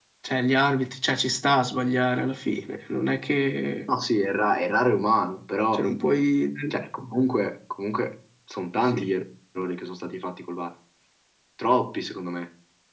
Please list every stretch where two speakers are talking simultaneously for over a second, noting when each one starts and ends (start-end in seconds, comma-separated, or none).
none